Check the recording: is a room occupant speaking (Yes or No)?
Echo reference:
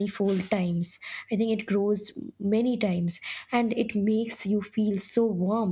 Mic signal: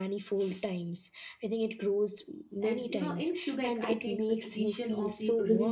Yes